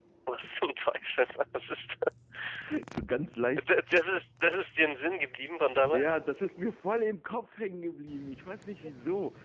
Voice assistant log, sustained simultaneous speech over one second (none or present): none